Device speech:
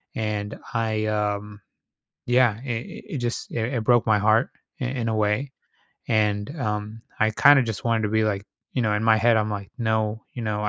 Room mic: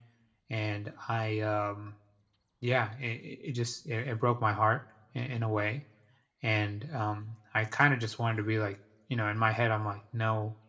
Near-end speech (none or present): none